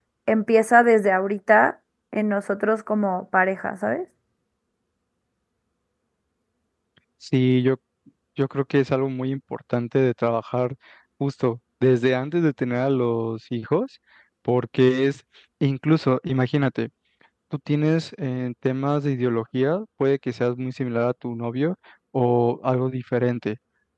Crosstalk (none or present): none